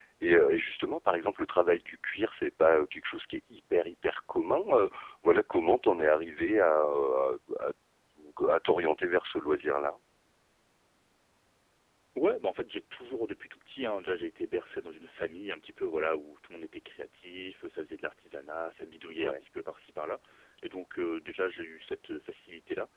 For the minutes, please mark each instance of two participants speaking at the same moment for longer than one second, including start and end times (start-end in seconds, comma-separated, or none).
none